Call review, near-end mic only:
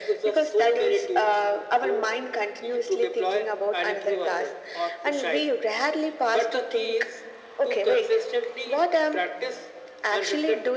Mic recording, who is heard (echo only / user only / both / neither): echo only